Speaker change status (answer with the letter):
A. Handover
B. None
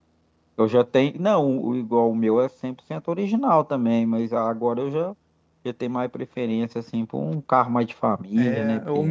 A